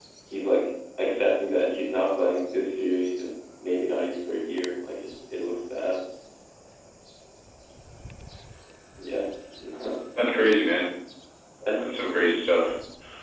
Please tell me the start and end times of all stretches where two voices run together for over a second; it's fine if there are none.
none

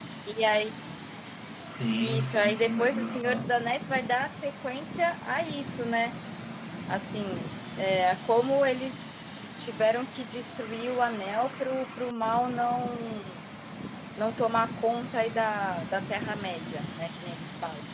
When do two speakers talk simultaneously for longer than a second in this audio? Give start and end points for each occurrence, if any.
2.0-3.6

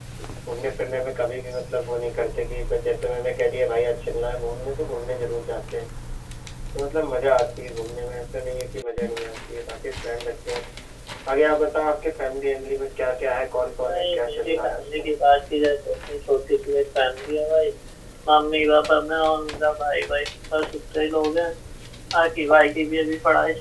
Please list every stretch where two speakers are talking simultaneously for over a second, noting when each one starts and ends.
13.8-15.1

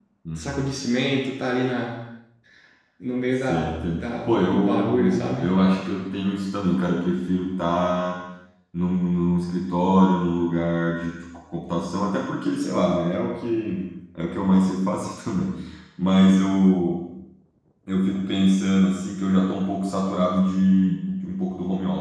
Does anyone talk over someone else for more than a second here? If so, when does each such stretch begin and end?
3.3-5.5

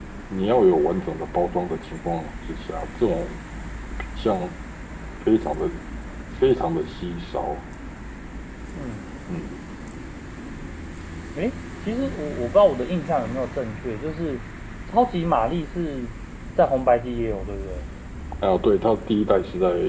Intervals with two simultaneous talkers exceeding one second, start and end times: none

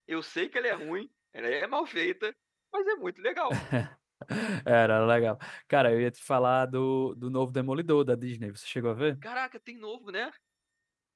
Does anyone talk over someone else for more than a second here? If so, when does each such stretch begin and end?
none

